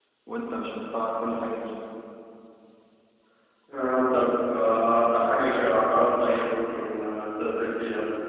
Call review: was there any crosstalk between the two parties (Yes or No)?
No